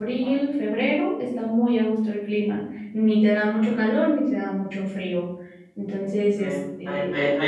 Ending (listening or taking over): taking over